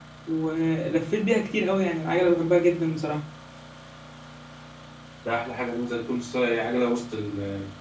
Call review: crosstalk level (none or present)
none